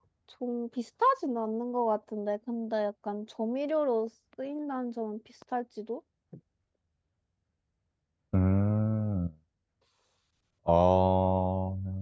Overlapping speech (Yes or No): No